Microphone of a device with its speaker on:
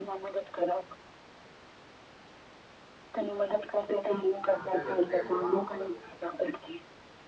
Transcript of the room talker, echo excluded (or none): आह त गनती है बौआ आमे